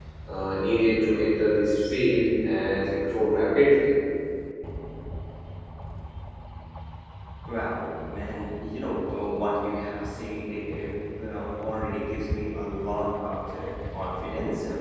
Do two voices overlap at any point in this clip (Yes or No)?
No